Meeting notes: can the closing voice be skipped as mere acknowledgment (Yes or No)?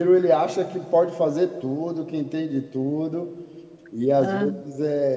Yes